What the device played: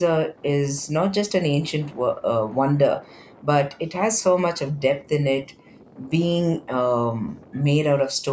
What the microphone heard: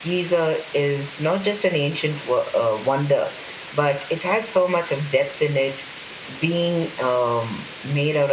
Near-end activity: none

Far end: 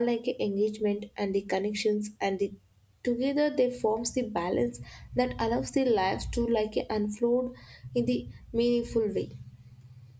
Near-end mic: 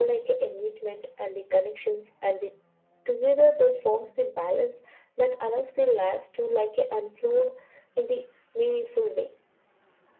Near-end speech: none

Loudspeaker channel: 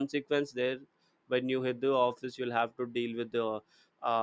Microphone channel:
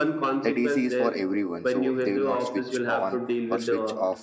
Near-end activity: present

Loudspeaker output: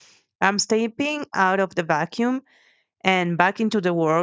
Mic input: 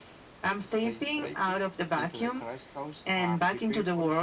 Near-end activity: present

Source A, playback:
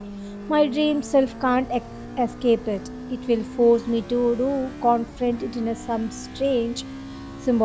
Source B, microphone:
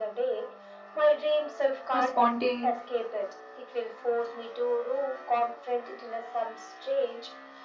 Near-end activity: present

